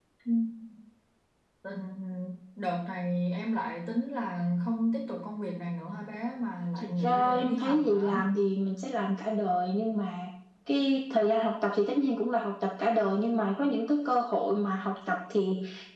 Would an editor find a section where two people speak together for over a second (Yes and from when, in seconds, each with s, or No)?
Yes, from 6.8 s